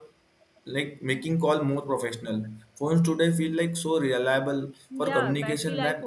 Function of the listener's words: taking over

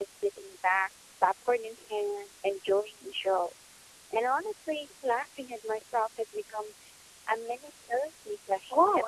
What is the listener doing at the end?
taking over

